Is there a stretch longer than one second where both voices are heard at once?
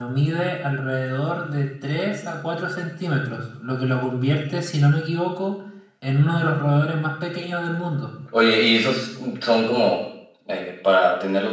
No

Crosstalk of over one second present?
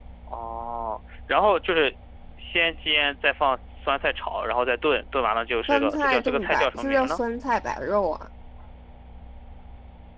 Yes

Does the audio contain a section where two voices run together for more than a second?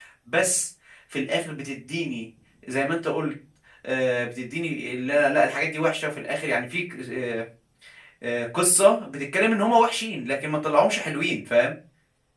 No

